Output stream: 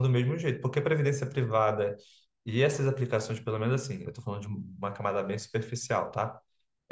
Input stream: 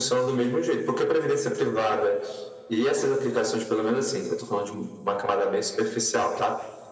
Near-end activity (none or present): none